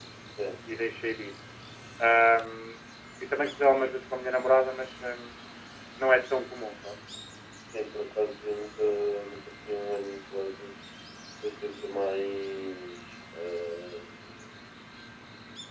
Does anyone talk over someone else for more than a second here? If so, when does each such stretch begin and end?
none

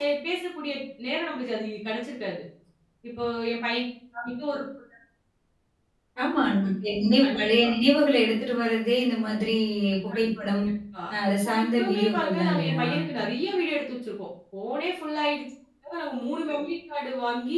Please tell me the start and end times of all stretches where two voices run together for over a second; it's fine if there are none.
11.1-12.8

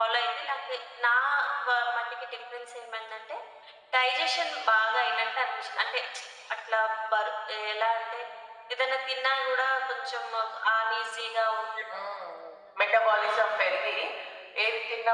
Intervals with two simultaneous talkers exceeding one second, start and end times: none

